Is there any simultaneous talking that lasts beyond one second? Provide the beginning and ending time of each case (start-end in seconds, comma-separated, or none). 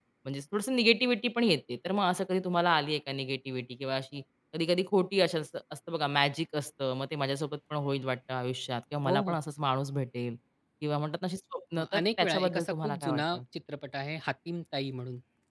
11.8-13.4